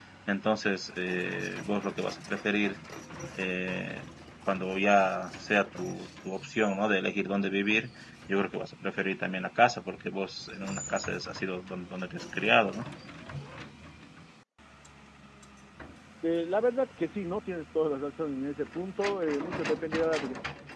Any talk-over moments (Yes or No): No